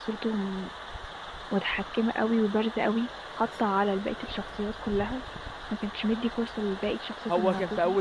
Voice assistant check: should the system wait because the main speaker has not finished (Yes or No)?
No